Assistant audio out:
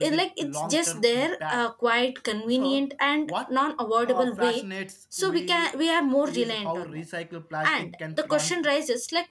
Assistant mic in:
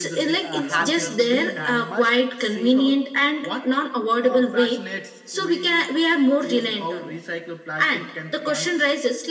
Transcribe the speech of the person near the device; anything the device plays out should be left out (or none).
uh, habit we must see